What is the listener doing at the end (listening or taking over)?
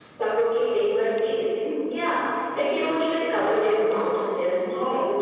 listening